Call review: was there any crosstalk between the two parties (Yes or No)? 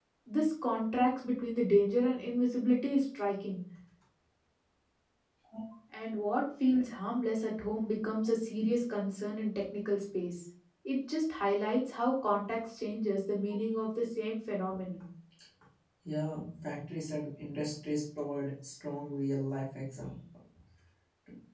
No